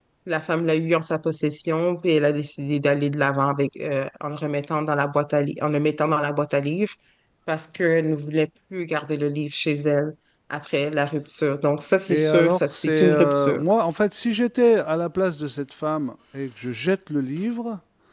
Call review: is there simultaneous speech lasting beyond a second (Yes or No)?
Yes